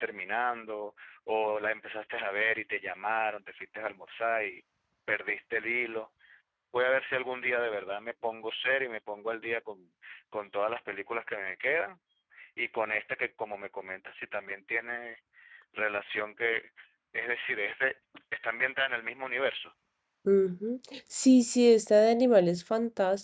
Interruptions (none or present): none